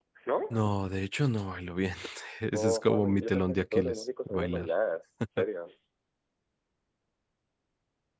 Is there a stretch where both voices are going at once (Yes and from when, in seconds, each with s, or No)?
Yes, from 2.5 s